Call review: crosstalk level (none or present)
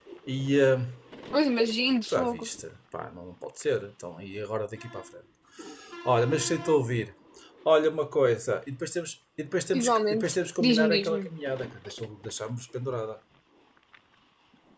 present